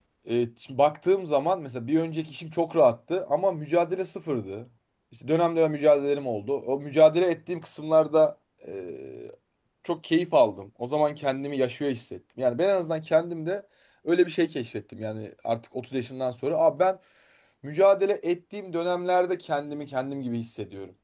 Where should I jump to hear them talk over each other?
none

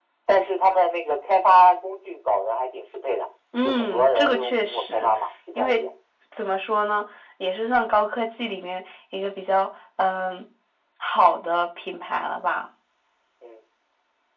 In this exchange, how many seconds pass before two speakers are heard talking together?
4 s

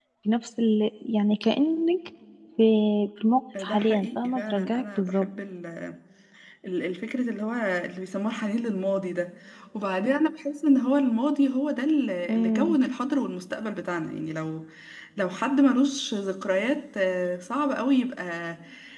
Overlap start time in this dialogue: 4 s

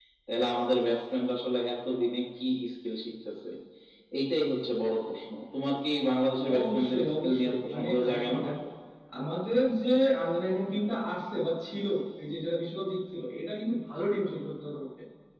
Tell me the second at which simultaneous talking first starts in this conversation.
6 s

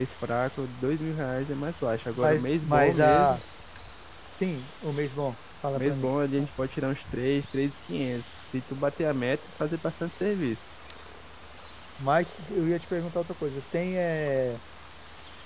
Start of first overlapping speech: 2 s

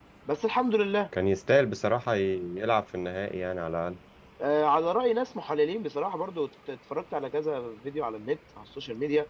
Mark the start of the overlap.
none

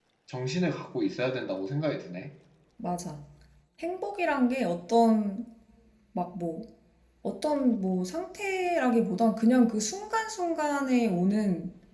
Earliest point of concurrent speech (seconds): none

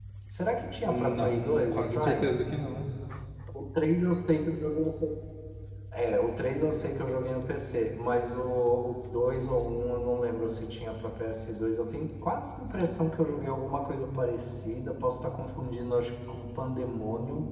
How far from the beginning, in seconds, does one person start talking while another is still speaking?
1 s

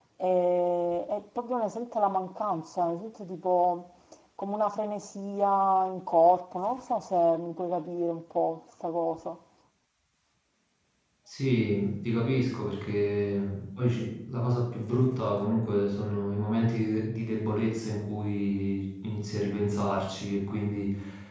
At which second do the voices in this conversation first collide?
none

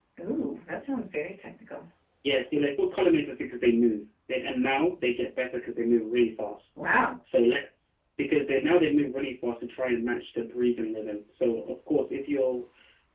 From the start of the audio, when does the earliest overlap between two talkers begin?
none

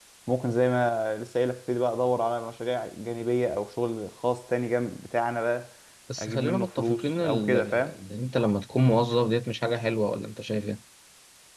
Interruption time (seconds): 6 s

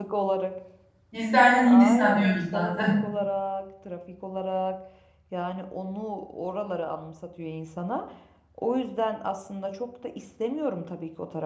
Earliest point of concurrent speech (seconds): 2 s

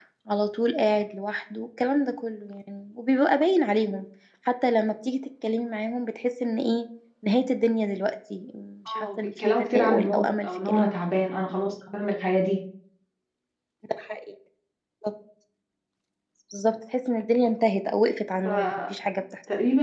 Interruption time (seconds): 9 s

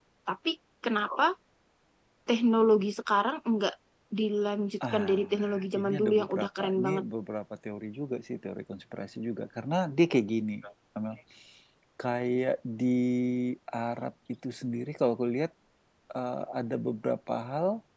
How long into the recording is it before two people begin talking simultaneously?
5 s

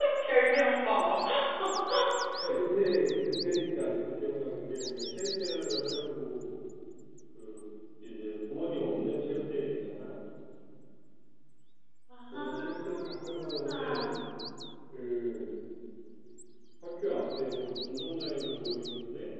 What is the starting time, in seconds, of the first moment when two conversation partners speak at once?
12 s

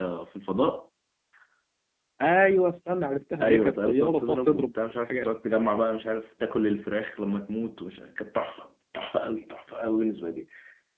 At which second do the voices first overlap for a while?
3 s

